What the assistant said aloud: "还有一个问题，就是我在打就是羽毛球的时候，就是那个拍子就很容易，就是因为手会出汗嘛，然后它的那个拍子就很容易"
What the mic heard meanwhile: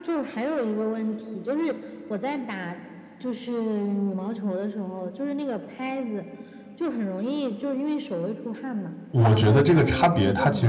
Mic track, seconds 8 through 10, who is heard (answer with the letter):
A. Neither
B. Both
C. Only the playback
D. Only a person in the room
B